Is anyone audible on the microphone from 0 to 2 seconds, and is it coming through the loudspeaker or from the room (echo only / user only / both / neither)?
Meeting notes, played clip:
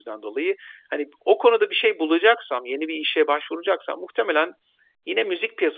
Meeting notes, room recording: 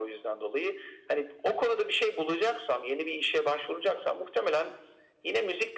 echo only